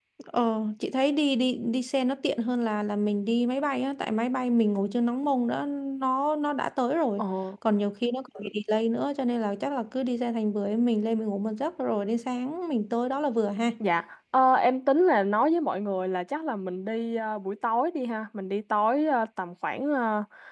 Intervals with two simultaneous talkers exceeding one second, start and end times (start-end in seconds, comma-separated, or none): none